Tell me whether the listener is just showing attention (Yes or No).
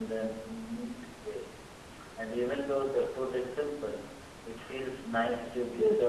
No